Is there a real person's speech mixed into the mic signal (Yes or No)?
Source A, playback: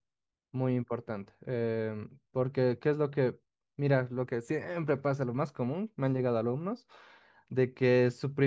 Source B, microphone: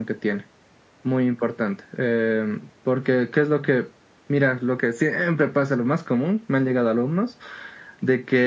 No